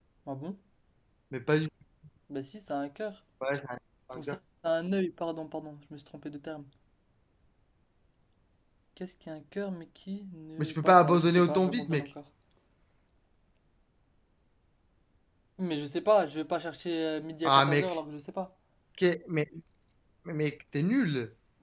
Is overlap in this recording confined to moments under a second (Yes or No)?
No